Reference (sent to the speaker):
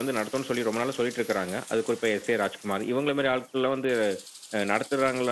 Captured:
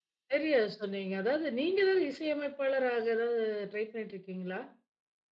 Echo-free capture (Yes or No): Yes